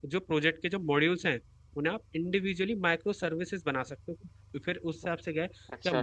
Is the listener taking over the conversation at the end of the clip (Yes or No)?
No